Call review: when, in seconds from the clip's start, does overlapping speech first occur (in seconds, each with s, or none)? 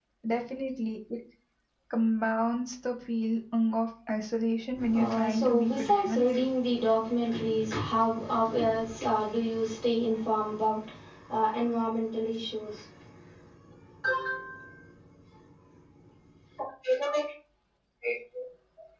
4.8 s